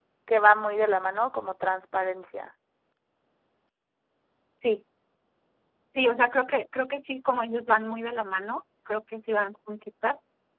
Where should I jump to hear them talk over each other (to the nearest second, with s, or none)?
none